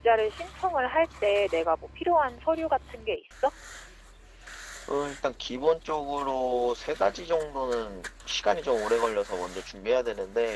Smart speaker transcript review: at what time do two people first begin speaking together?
none

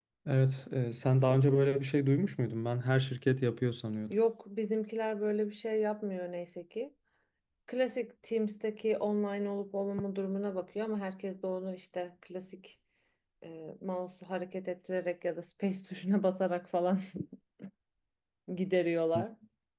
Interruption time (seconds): none

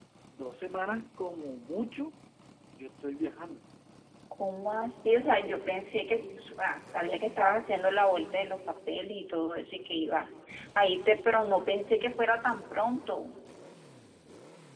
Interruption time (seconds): none

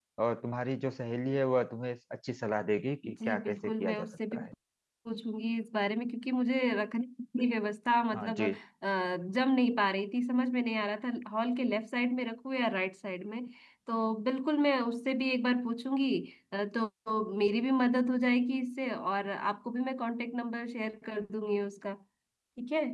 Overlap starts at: 3.1 s

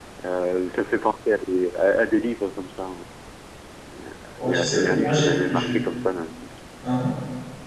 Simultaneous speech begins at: 4.4 s

